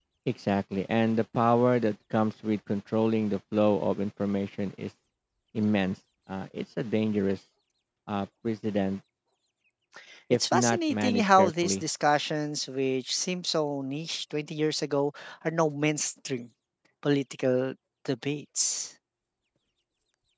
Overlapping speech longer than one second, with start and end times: 10.3-11.8

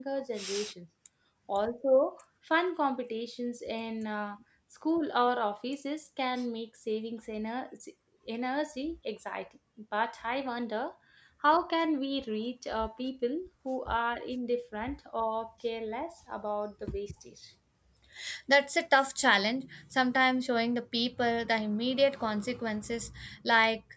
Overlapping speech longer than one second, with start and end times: none

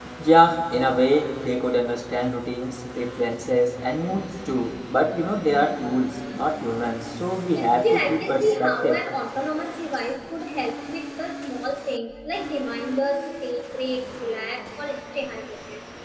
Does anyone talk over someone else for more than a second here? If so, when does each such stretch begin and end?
7.6-9.0

